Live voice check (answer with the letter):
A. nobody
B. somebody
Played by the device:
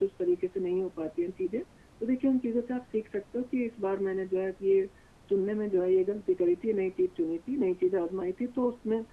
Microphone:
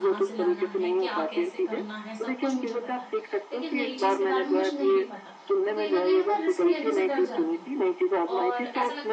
B